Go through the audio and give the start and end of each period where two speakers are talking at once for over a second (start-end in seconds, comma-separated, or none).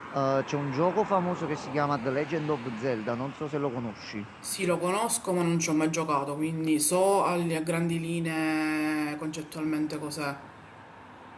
none